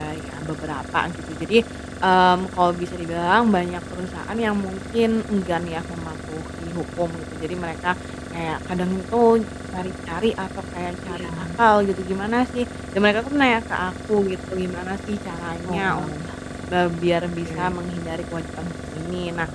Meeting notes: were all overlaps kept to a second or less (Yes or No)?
Yes